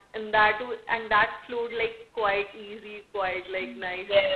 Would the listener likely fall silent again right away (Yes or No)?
No